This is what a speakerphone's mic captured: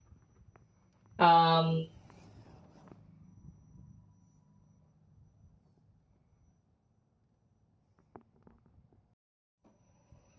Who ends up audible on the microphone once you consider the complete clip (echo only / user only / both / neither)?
user only